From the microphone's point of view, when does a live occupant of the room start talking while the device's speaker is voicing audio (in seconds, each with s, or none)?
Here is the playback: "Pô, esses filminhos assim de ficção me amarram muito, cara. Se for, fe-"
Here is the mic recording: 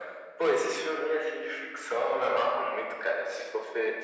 none